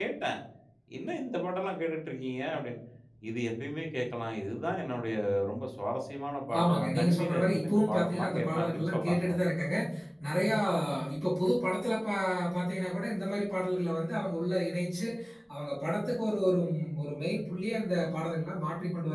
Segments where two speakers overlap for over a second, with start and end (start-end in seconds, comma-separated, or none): 6.6-9.4